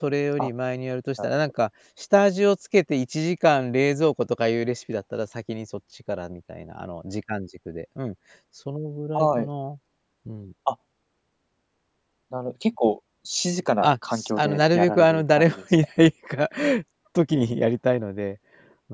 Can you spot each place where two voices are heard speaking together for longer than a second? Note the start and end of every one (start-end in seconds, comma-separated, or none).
13.8-15.6